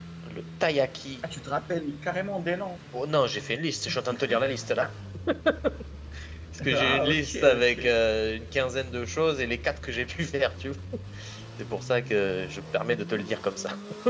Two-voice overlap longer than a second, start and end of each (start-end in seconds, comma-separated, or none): 6.7-7.9